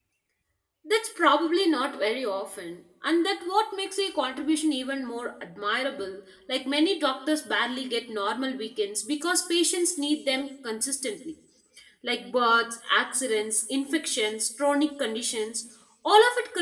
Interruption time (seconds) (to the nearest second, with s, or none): none